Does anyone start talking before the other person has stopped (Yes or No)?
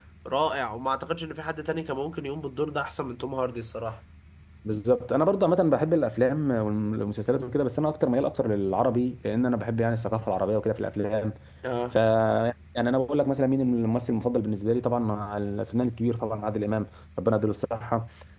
No